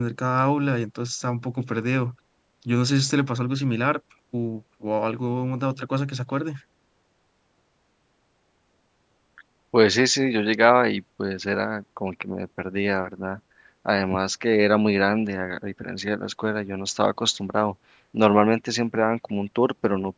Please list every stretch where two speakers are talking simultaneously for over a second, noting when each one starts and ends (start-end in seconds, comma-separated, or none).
none